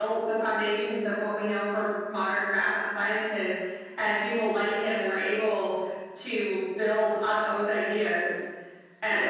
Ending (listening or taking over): listening